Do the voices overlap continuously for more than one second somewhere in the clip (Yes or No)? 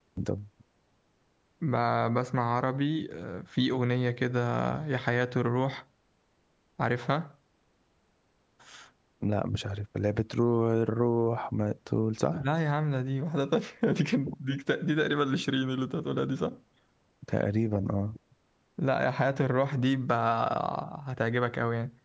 No